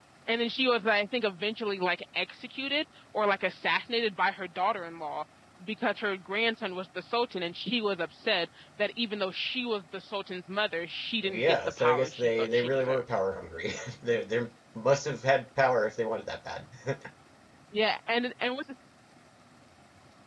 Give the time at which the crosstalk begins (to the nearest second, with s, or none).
11 s